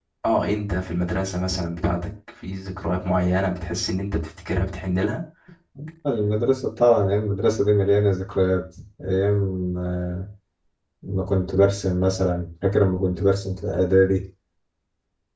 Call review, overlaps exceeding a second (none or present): none